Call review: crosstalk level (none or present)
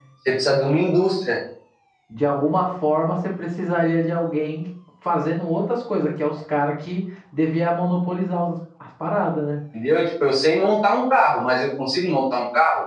none